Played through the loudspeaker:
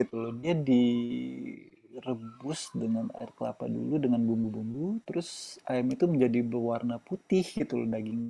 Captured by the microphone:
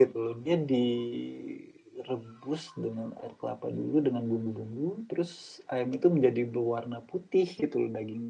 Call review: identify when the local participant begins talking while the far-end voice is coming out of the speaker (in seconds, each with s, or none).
none